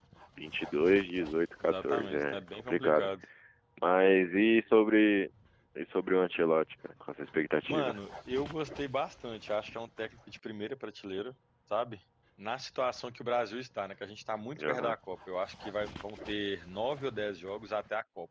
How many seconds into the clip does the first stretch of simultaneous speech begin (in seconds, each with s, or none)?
1.6 s